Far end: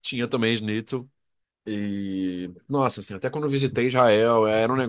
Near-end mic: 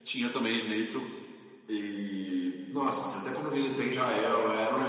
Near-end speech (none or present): none